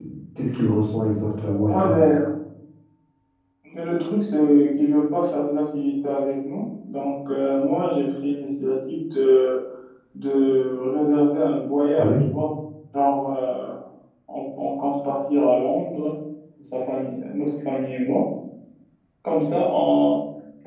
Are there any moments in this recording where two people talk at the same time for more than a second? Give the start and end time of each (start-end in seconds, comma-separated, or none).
none